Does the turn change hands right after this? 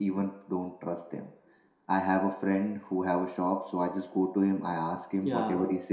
No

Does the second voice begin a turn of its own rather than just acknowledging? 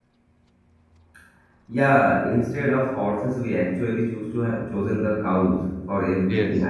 No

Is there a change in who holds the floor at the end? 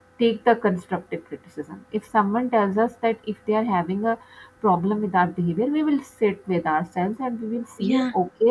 No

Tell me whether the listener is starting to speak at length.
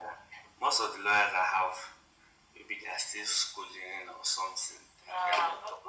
Yes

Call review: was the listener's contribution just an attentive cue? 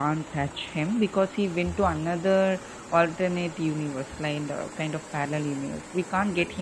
Yes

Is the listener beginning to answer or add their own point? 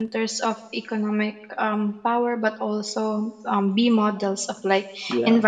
No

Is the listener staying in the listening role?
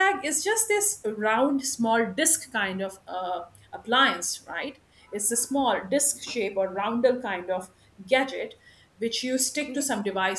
Yes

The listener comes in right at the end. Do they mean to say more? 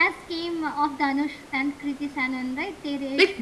Yes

